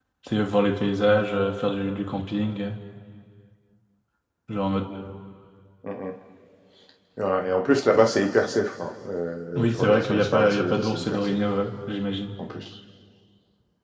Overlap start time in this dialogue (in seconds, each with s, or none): 9.5 s